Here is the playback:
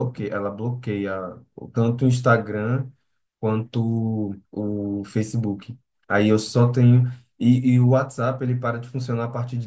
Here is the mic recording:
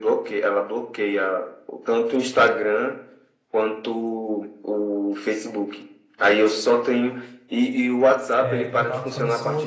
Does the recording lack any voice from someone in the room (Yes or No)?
No